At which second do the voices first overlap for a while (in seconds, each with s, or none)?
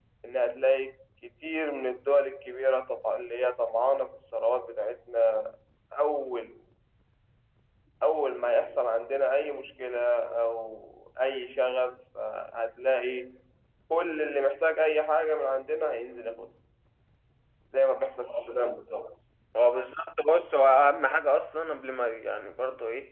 none